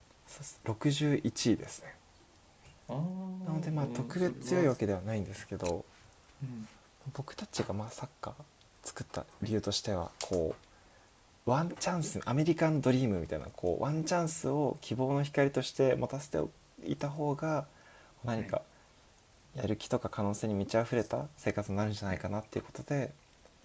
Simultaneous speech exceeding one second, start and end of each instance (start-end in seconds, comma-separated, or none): 3.5-4.7